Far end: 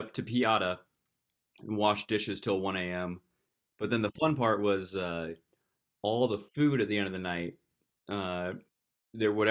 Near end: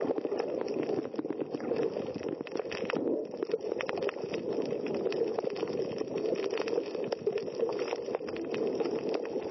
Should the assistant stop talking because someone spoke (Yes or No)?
No